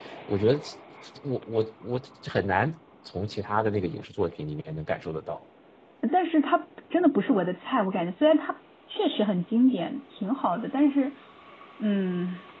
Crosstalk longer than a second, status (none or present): none